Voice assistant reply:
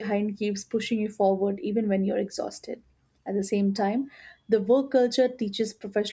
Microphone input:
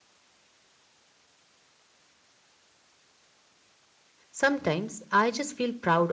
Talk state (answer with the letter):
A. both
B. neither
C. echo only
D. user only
D